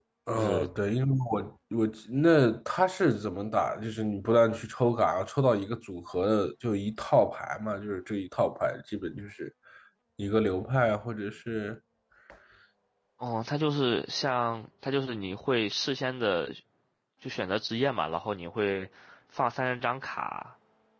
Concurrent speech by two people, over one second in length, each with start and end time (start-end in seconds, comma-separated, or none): none